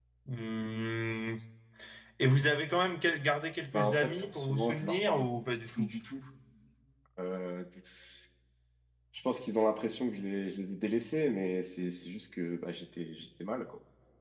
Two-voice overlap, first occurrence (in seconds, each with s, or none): 3.7 s